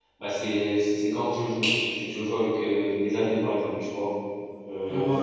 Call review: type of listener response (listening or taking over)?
listening